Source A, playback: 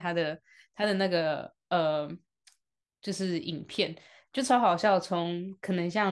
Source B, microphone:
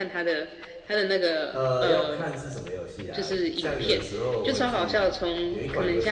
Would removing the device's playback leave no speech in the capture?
No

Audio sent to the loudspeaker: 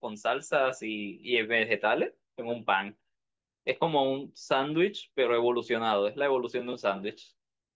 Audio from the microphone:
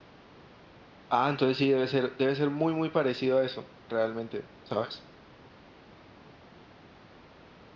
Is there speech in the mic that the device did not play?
Yes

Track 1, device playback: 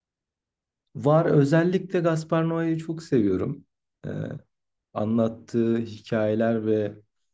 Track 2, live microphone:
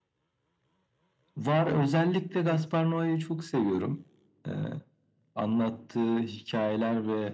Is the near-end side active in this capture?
Yes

